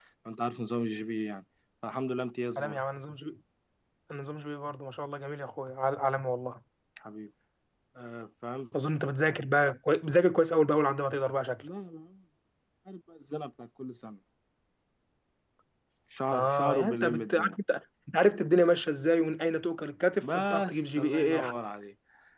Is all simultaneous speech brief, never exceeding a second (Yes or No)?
No